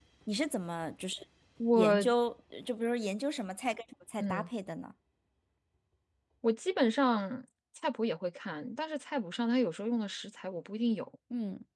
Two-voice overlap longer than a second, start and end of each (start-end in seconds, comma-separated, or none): none